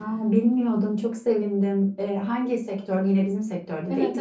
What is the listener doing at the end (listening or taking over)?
taking over